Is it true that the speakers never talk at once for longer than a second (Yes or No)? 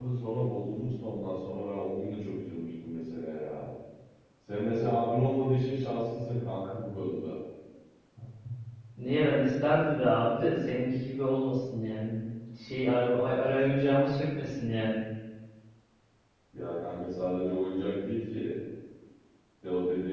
Yes